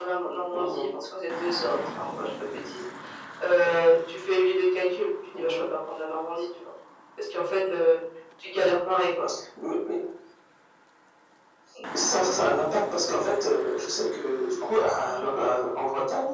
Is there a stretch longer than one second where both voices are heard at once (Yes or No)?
No